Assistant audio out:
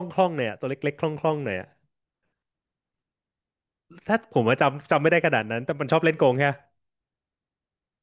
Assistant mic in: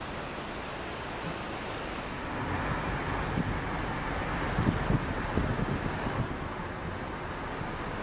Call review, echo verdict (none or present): none